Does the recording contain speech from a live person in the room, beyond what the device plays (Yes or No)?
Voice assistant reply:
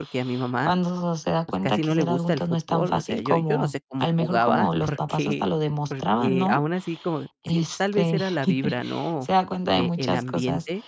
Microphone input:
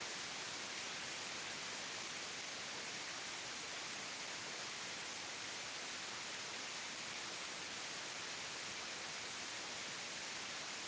No